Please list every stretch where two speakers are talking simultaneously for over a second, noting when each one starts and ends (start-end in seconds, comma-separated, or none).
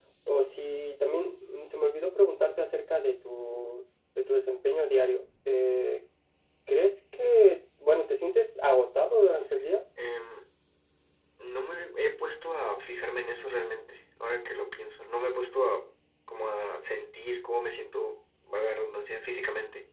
none